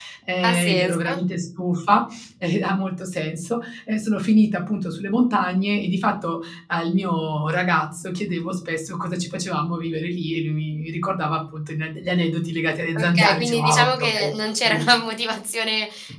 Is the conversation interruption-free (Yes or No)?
No